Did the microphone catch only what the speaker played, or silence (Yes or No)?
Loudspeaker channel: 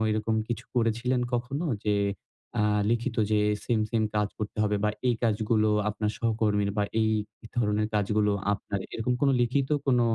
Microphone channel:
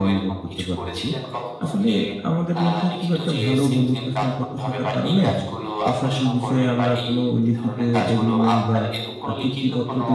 No